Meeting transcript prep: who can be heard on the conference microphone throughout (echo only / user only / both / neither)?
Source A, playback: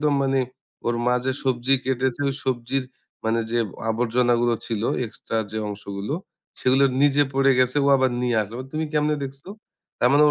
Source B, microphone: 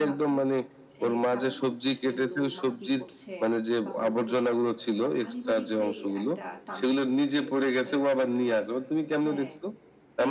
both